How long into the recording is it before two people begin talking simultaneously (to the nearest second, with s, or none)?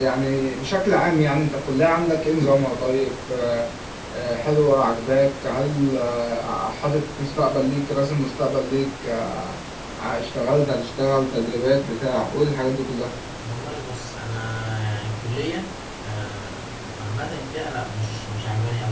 none